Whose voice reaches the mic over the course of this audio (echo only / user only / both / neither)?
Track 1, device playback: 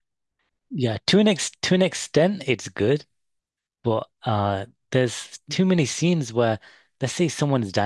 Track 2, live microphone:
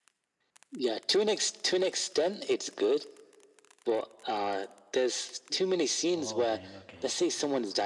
both